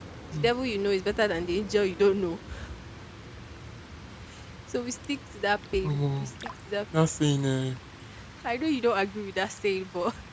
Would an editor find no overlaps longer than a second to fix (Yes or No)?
Yes